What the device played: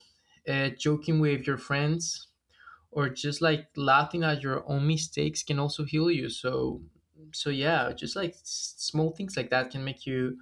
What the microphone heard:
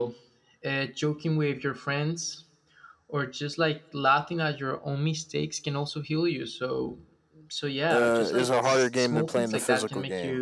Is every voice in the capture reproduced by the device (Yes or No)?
No